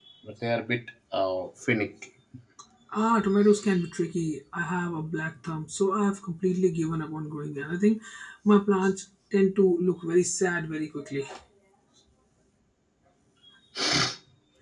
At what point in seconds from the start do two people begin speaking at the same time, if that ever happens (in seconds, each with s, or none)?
none